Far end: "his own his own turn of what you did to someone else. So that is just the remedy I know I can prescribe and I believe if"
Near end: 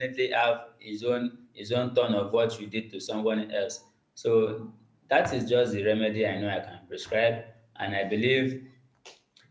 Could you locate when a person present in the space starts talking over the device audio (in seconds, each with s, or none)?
none